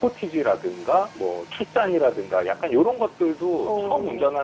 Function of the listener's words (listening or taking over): listening